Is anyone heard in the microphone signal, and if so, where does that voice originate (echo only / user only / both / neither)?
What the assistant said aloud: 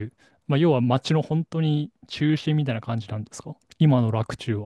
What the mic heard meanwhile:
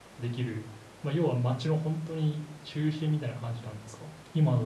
echo only